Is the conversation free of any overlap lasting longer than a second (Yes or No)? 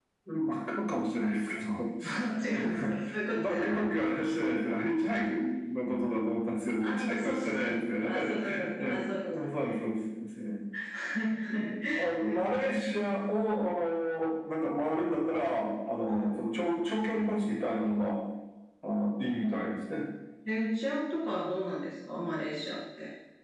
No